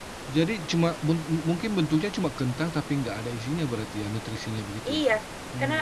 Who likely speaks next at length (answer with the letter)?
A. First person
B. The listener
B